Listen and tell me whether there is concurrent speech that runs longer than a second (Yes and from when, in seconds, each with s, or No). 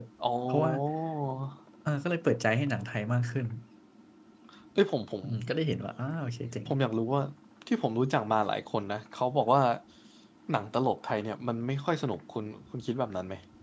No